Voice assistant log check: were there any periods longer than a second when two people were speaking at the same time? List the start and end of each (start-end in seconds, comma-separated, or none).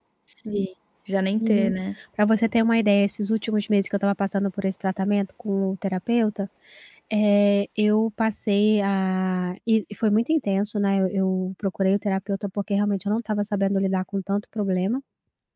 none